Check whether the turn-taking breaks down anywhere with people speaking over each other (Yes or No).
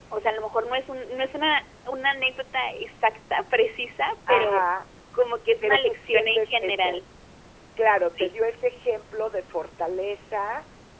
Yes